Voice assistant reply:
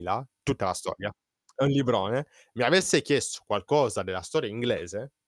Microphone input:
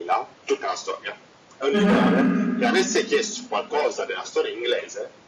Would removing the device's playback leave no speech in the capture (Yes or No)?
No